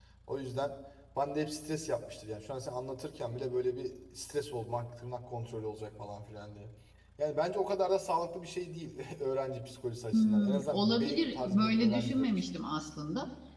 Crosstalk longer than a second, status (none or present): present